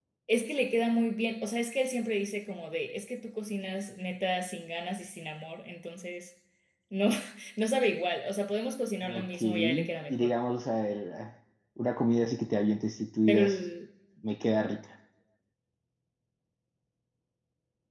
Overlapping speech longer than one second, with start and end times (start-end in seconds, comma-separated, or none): 9.0-10.3